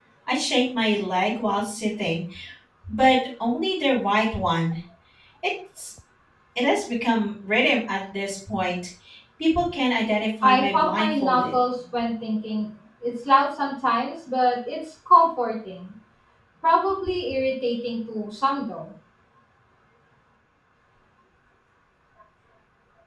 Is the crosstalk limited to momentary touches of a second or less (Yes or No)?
No